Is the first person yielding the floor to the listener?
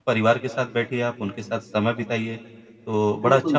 Yes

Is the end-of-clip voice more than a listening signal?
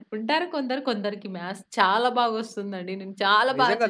Yes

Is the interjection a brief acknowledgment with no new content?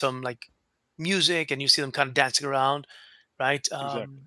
Yes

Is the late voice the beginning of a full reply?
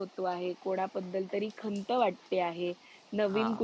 No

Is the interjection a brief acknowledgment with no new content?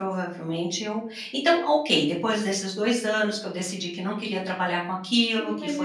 No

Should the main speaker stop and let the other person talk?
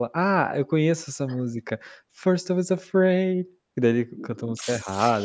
Yes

